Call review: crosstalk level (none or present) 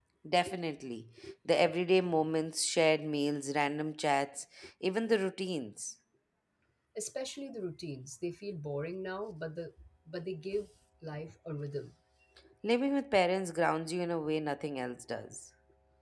none